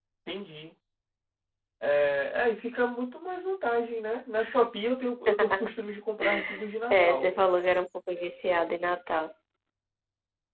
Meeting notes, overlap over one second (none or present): none